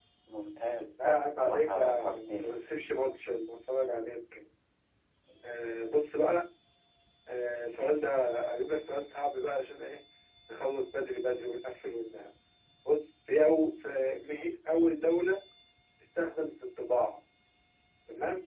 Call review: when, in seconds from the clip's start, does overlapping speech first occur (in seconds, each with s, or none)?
1.0 s